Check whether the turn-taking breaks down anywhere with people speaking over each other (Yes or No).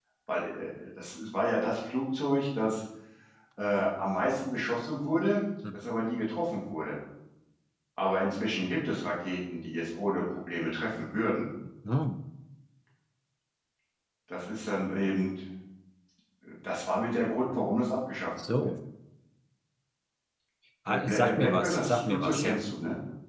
Yes